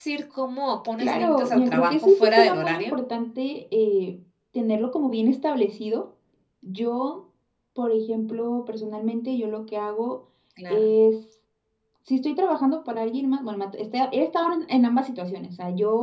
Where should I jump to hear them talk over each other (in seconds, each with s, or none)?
1.0 s